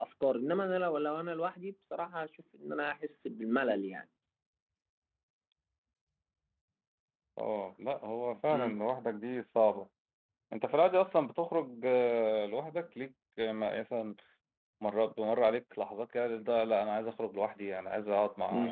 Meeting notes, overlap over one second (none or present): none